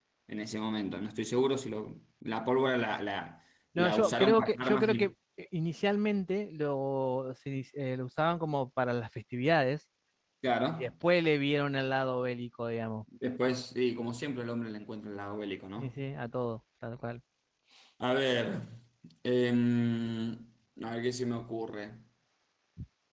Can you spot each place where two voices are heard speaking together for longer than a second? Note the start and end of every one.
3.8-5.1

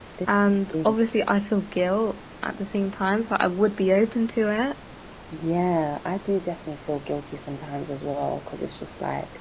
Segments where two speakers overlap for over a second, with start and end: none

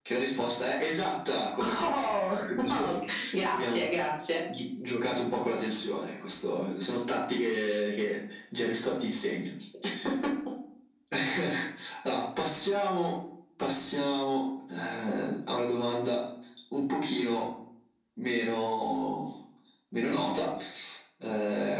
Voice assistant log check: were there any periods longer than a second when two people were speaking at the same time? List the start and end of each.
1.6-2.9

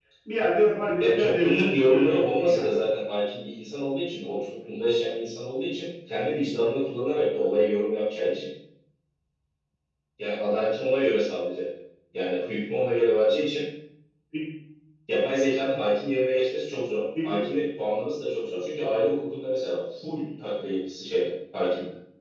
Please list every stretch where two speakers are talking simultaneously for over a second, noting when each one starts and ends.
1.0-2.8

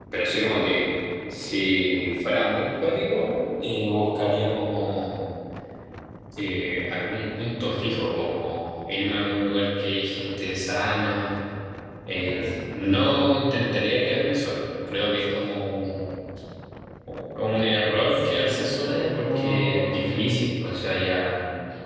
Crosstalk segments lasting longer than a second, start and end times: 18.1-20.2

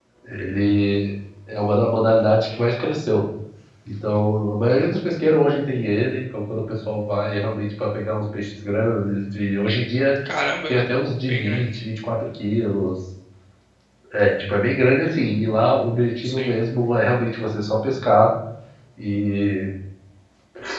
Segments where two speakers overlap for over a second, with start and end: none

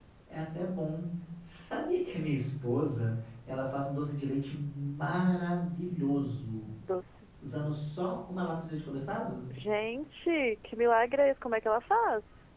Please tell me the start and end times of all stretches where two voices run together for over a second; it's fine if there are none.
none

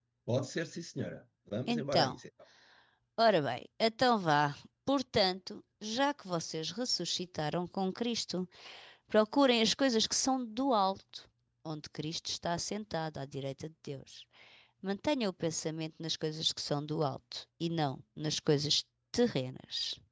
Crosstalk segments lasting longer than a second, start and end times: none

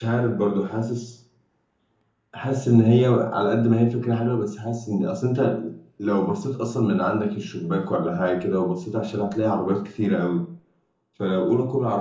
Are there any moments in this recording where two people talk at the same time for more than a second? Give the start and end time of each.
none

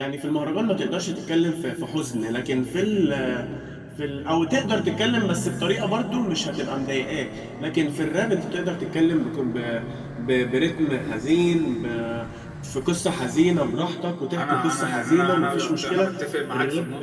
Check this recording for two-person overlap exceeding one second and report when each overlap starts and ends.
14.4-16.1

